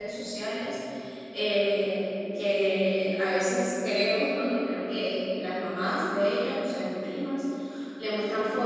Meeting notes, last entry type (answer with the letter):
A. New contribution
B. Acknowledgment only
B